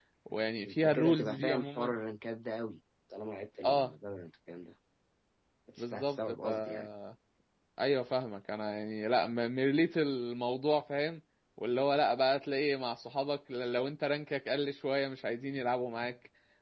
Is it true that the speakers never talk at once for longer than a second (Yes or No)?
No